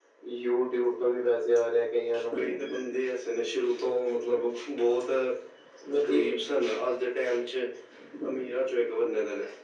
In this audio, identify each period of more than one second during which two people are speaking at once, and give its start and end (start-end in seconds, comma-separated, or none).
none